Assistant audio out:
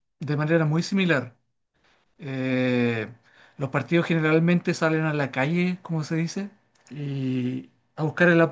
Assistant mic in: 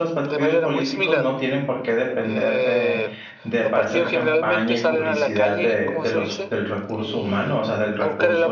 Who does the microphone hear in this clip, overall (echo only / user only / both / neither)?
both